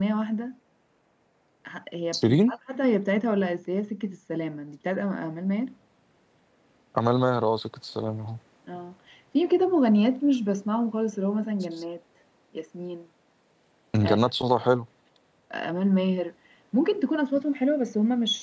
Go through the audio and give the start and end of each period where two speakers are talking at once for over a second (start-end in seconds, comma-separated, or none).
none